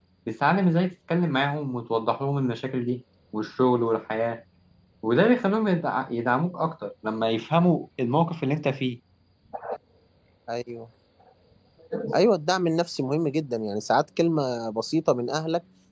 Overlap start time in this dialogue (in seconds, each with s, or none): none